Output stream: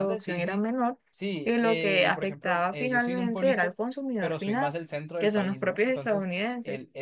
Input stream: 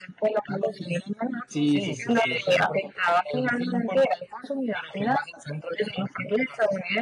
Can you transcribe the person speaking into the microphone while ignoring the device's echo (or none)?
Sí, sí, sí, sí, sí.